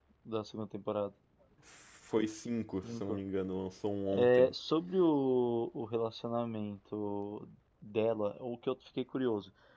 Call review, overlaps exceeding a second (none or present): none